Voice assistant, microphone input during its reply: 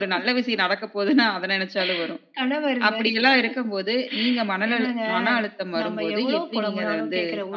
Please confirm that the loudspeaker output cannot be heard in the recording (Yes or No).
No